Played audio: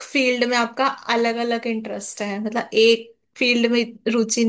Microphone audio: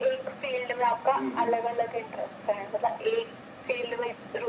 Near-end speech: present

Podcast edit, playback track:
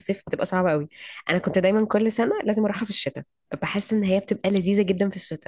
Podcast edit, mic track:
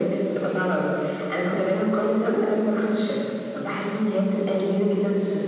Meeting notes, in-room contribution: none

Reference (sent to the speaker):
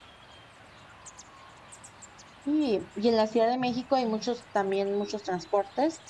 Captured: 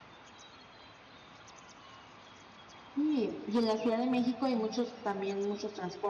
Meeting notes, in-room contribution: none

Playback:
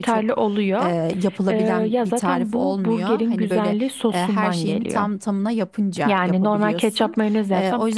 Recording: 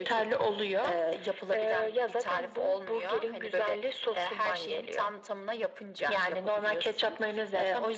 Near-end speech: none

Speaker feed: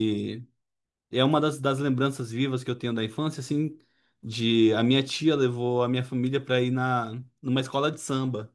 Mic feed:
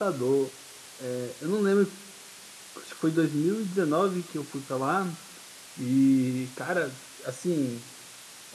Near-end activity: present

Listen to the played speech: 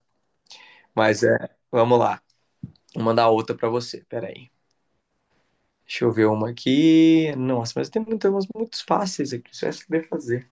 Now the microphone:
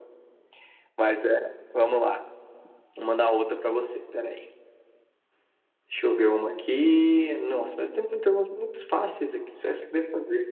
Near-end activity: none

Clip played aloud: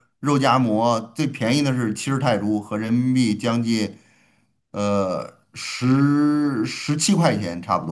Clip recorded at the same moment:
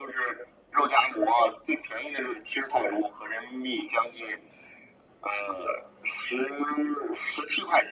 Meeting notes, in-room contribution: none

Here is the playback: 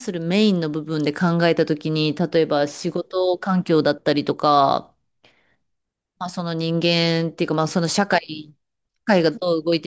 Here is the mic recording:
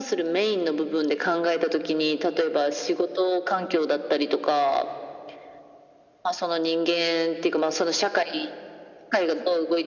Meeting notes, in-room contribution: none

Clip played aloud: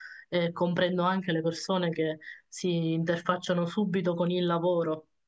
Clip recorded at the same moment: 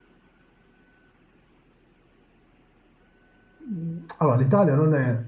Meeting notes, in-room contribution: present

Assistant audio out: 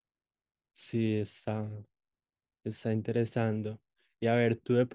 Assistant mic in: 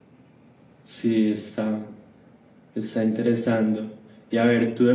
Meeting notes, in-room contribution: none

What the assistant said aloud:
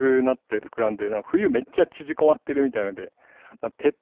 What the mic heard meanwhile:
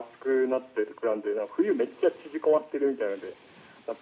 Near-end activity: none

